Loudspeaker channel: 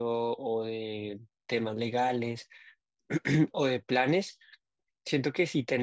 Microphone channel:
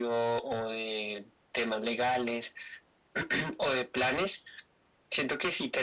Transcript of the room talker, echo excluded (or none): none